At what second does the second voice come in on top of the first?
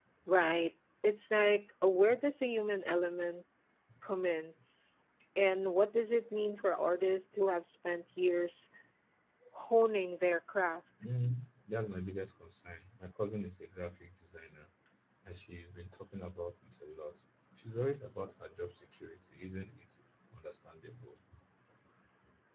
none

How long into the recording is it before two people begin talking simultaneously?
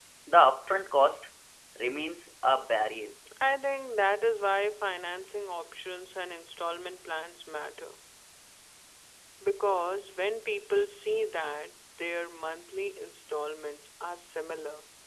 none

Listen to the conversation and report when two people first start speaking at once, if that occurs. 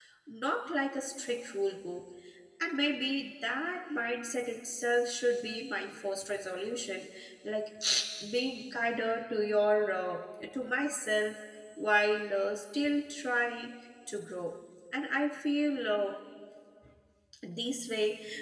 none

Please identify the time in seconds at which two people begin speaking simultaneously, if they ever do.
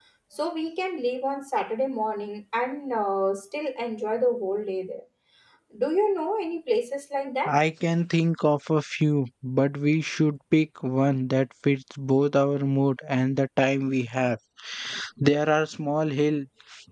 none

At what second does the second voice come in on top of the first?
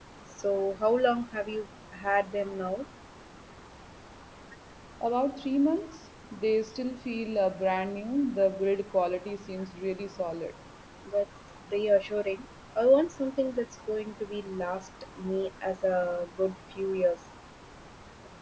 none

